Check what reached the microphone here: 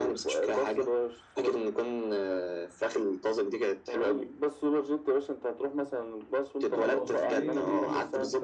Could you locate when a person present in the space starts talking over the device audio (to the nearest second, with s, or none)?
7 s